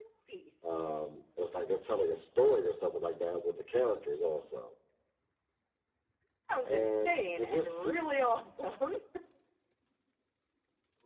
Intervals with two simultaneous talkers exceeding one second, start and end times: 6.7-8.1

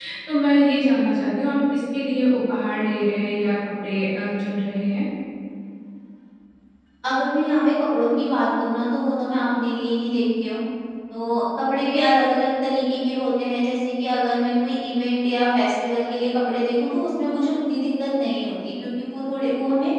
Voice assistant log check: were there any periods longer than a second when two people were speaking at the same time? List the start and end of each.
none

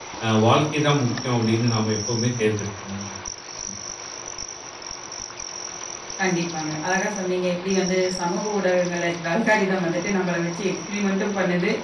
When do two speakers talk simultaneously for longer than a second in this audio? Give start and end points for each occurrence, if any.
none

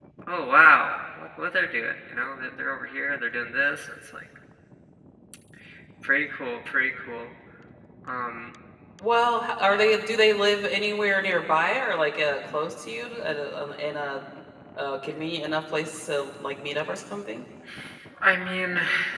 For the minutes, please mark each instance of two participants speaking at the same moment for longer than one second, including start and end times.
none

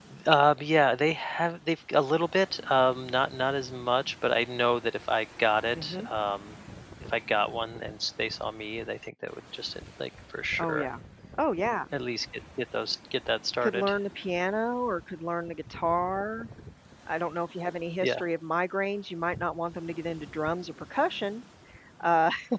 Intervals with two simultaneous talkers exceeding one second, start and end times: none

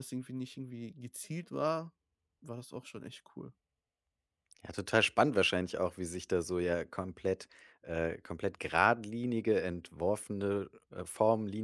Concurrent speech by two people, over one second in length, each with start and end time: none

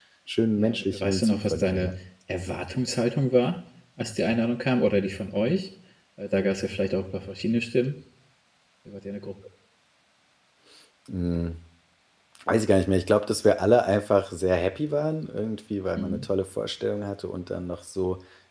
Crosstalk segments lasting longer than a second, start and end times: 0.6-1.9

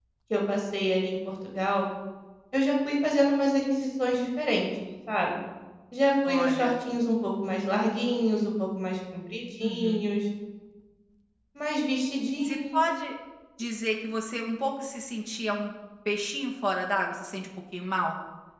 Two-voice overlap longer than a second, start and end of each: none

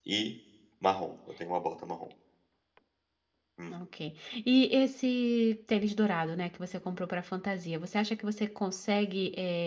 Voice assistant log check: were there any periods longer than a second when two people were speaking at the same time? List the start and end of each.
none

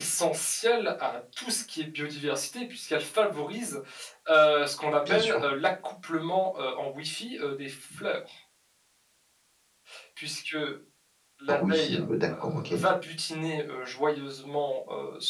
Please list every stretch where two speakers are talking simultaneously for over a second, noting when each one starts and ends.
11.5-12.7

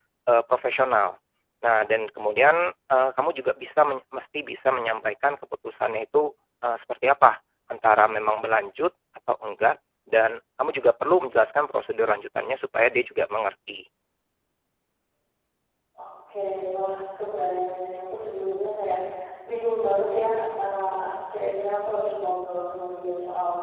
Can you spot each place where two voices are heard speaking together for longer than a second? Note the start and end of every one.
none

